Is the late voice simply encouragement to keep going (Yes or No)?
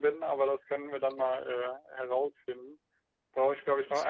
Yes